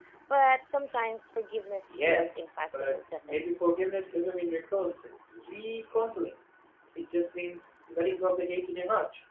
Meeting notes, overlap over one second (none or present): present